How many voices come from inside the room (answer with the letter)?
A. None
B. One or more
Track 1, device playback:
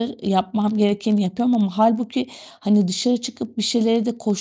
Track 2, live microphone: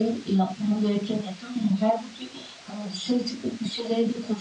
A